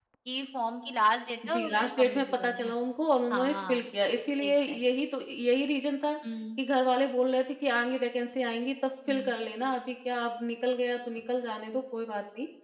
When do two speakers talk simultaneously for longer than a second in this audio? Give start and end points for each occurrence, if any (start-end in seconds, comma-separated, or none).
1.5-2.7